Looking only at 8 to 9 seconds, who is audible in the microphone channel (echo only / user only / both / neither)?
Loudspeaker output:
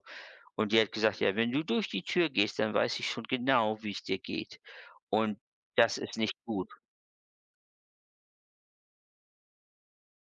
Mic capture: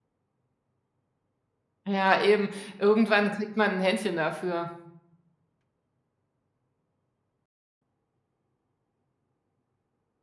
neither